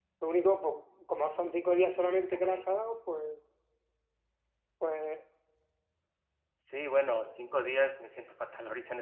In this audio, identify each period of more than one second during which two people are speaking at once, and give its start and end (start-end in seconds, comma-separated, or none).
none